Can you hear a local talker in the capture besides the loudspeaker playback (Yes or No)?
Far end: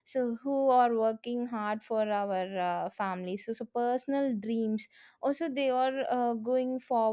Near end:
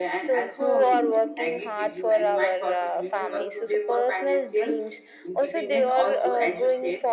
Yes